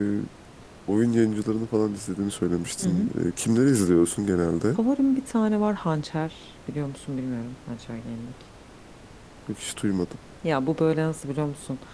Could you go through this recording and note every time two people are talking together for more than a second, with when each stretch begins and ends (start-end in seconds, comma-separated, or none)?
none